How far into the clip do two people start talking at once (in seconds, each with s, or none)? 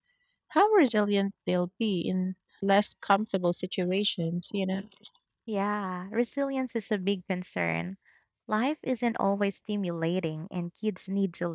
none